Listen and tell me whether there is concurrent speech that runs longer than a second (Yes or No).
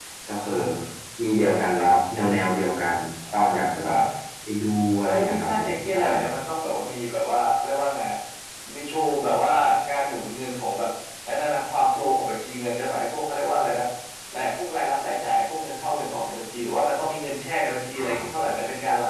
Yes